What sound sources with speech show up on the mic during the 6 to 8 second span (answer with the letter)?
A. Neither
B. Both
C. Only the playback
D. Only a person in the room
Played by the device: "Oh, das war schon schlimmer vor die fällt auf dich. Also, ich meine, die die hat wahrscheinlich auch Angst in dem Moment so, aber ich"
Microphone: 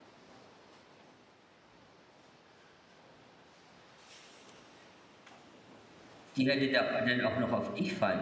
D